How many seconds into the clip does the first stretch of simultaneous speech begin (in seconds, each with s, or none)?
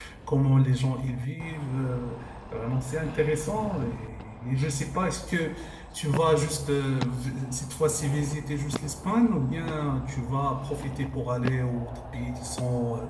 none